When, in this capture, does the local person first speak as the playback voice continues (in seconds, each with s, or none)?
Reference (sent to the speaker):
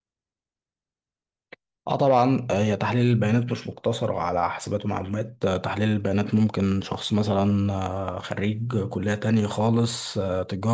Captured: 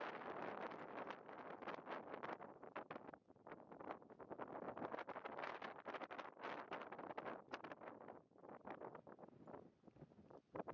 none